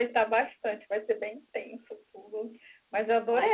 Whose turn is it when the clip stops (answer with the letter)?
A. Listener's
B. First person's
B